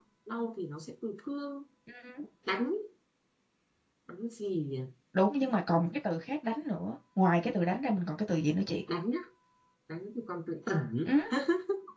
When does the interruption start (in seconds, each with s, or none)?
none